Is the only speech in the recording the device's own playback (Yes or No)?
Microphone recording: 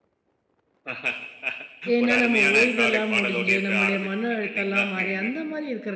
No